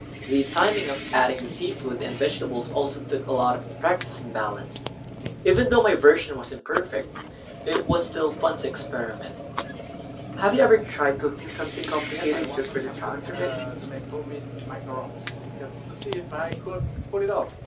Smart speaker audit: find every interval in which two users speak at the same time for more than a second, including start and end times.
12.1-13.5

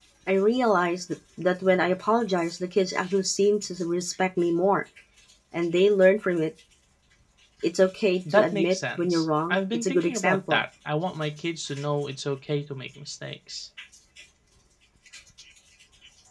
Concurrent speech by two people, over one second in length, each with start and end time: 8.3-10.6

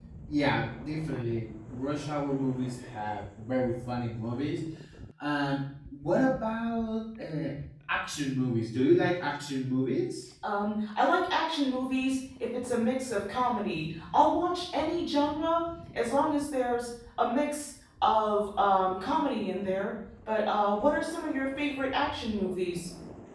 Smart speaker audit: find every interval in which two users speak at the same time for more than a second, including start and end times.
none

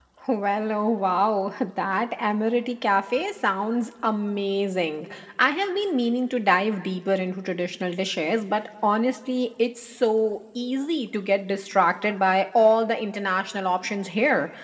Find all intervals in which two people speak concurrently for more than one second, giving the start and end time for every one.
none

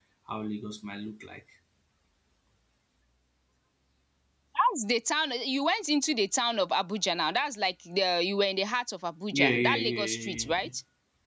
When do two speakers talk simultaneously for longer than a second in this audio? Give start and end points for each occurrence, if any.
9.3-10.7

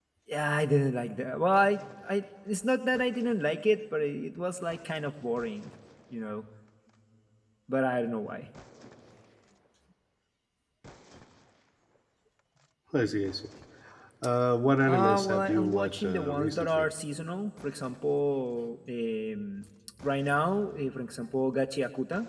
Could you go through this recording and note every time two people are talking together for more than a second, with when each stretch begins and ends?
14.9-16.9

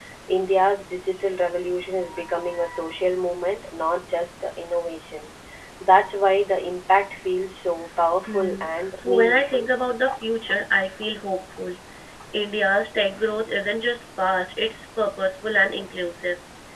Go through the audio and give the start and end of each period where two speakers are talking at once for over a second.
8.3-9.7

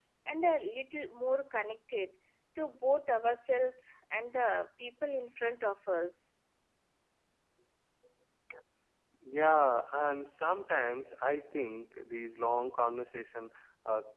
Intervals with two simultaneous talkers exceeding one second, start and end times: none

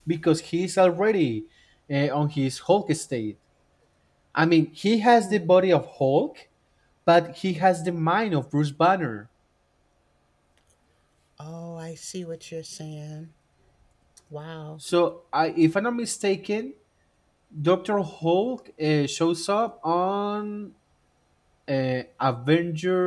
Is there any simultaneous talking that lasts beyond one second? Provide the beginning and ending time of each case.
none

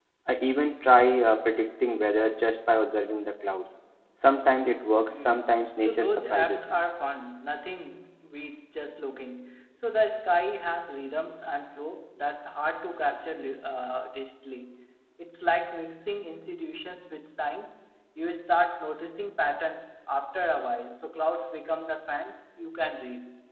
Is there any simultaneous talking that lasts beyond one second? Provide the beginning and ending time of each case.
5.1-6.8

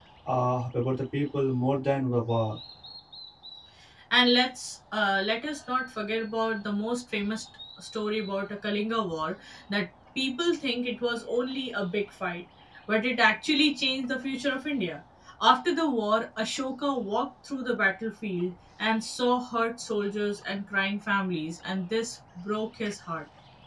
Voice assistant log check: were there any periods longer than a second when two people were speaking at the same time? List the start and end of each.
none

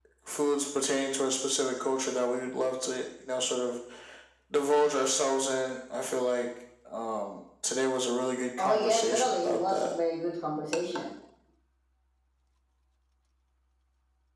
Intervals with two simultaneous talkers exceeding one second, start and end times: 8.6-9.9

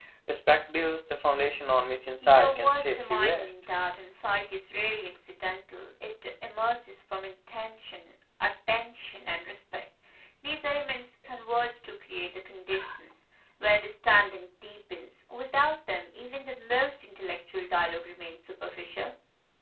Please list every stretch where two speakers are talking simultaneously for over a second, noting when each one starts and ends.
2.2-3.5

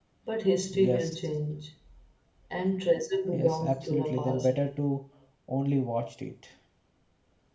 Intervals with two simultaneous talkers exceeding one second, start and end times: 3.3-4.6

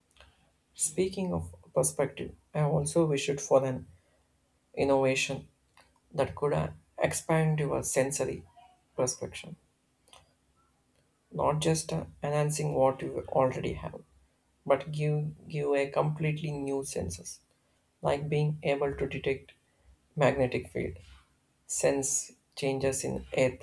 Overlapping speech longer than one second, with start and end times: none

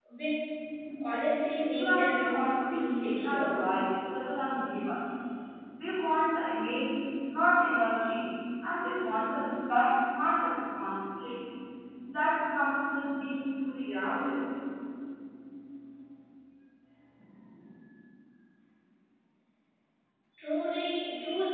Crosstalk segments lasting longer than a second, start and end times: 1.7-3.5

